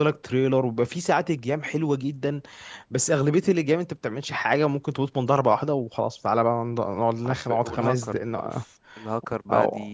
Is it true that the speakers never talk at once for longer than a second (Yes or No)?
No